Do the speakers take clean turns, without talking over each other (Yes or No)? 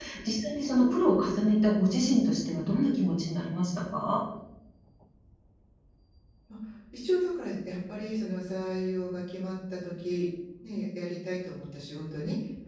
Yes